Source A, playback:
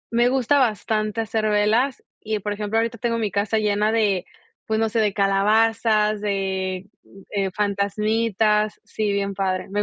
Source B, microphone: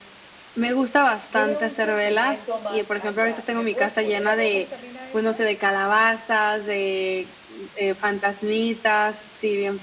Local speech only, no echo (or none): Tiene un sentimiento más allá. ¿Y le puedes poner aromas también a esas?